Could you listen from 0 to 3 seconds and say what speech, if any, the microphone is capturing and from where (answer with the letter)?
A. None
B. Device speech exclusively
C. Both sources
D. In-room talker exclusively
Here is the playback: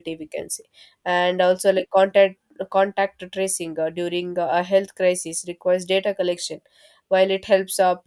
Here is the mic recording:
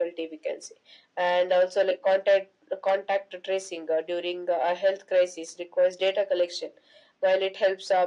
B